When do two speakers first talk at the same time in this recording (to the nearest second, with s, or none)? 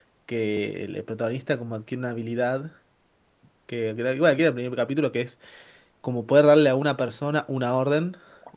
none